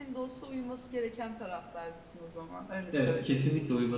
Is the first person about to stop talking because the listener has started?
Yes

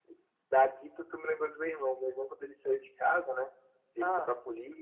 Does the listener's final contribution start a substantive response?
No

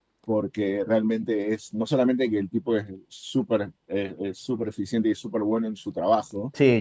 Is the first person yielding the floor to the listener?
Yes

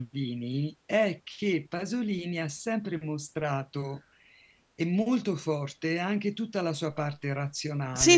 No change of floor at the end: No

